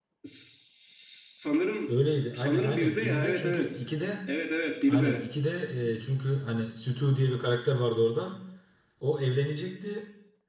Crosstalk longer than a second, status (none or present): present